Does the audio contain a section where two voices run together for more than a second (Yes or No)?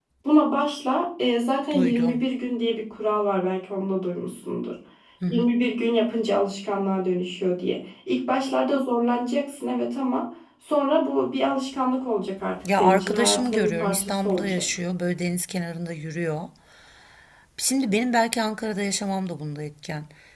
Yes